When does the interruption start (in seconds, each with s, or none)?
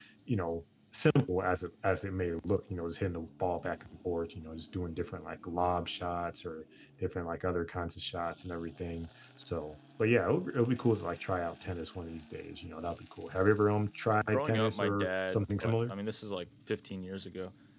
14.1 s